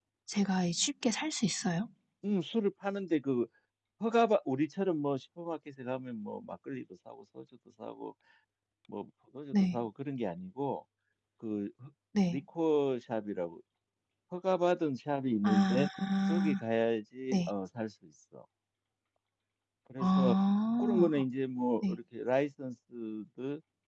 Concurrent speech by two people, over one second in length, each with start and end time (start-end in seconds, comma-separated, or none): none